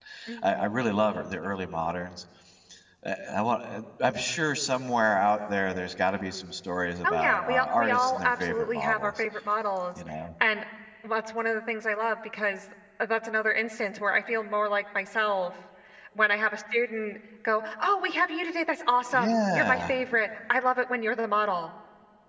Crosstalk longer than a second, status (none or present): present